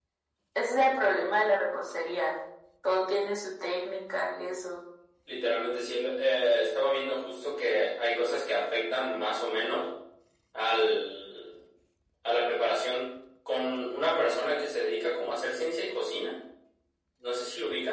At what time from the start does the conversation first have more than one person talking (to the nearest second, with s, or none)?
none